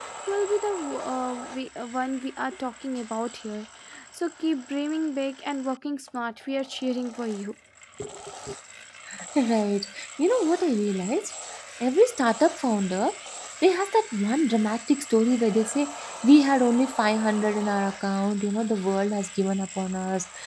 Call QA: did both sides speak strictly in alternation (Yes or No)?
Yes